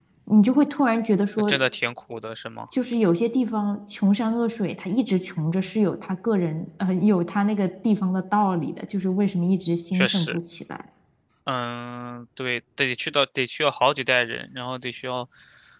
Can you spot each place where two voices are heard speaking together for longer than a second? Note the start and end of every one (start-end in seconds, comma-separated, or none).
none